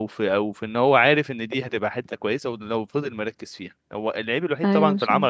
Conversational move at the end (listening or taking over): listening